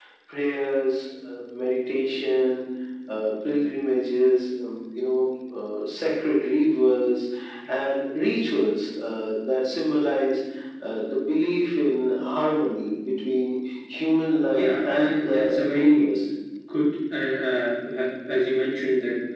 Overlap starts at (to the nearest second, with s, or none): 14 s